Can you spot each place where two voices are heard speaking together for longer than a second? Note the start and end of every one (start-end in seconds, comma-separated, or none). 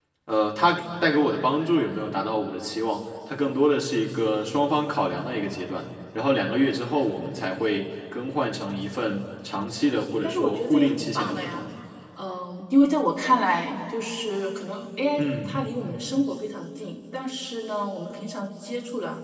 10.2-11.6